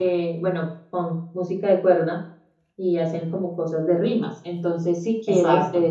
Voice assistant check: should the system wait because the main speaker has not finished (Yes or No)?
Yes